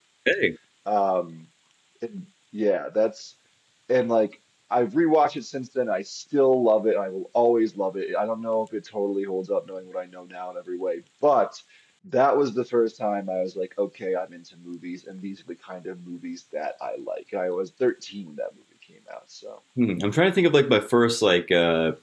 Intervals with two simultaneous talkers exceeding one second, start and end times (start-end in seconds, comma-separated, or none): none